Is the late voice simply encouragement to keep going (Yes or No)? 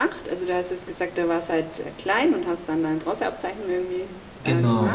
No